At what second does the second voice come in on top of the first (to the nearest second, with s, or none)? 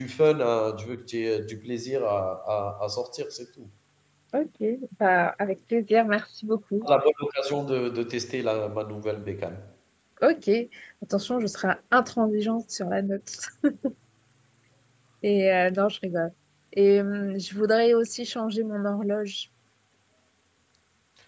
none